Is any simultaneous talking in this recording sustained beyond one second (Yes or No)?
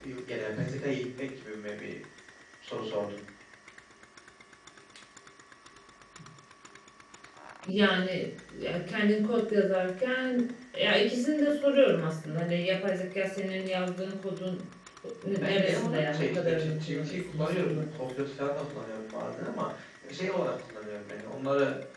Yes